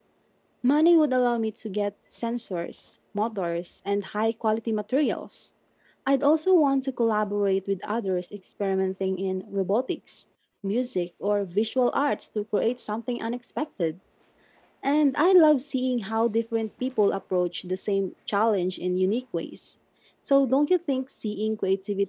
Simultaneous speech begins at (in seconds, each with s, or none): none